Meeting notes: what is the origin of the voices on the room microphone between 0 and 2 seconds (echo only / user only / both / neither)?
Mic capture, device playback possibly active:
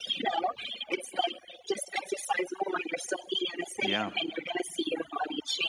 echo only